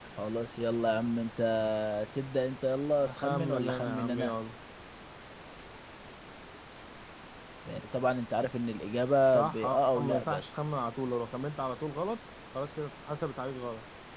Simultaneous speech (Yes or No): Yes